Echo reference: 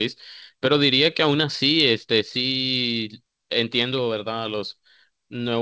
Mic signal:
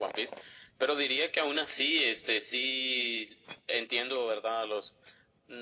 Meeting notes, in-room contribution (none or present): none